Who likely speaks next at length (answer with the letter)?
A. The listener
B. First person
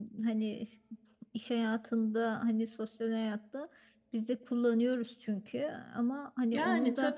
A